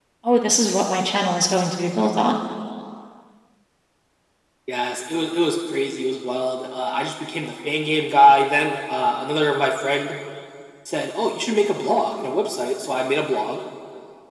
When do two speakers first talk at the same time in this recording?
none

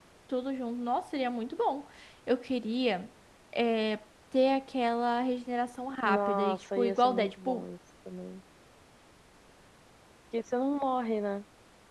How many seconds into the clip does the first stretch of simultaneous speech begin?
6.0 s

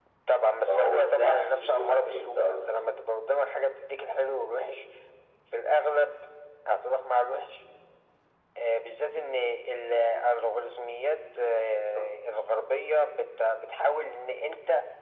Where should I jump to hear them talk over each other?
0.7 s

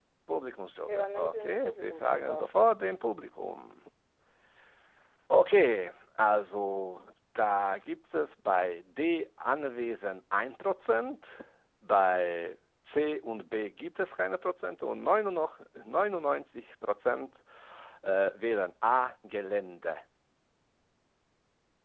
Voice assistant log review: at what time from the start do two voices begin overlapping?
0.9 s

